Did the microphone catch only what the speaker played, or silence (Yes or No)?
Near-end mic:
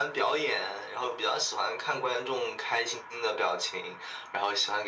Yes